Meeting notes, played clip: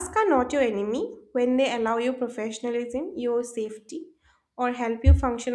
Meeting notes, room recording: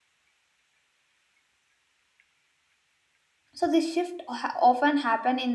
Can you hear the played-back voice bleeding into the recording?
No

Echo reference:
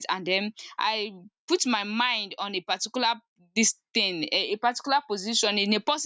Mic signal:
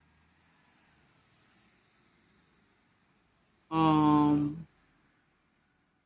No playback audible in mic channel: Yes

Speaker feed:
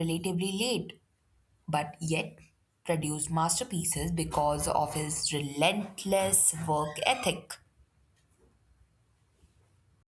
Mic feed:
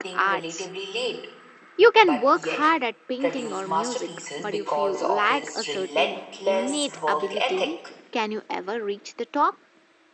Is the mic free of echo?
No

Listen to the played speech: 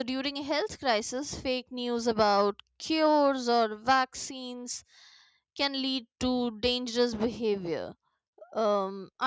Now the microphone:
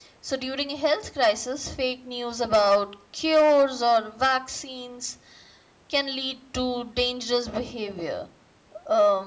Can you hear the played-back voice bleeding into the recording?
Yes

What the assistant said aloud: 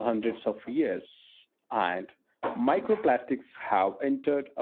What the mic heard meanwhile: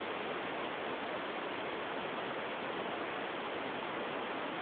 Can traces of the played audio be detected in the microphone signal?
No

